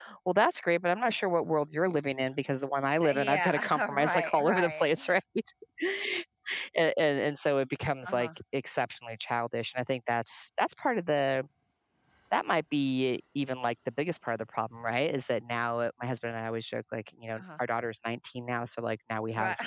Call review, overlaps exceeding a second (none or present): present